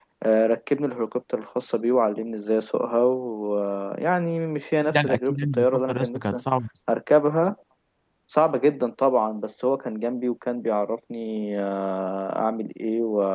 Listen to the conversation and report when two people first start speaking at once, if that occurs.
4.8 s

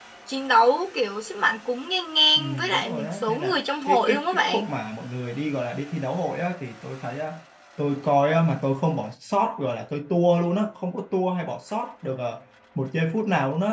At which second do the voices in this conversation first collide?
2.4 s

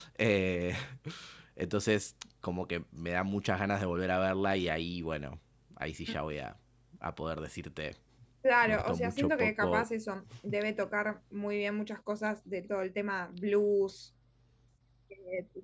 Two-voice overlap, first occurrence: 8.6 s

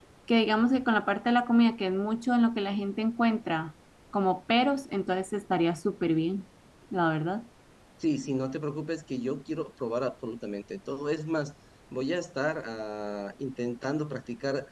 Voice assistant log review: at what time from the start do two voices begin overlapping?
none

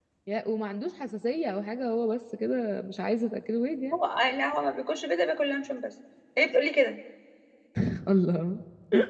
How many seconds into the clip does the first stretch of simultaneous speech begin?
none

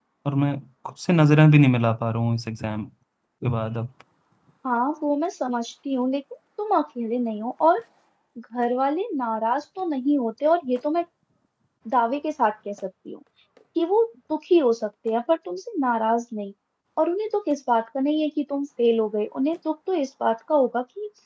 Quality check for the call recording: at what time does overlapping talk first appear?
none

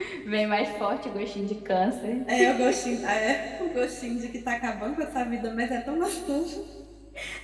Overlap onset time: none

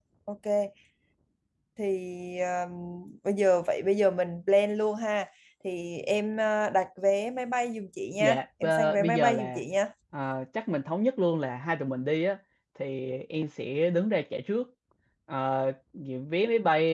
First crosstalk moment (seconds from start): 8.2 s

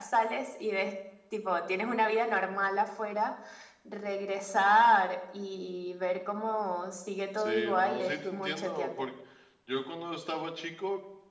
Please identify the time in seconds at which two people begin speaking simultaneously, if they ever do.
7.4 s

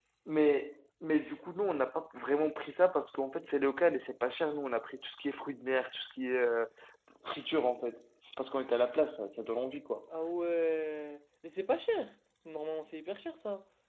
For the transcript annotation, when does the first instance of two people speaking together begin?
none

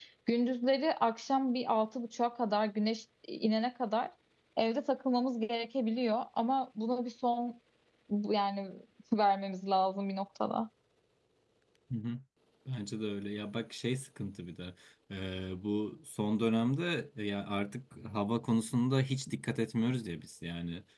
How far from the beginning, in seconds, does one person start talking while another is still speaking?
none

